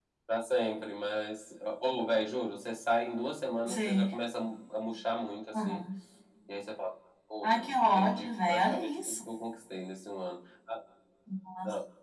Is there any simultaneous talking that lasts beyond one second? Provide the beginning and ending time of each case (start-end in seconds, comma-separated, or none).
7.4-9.2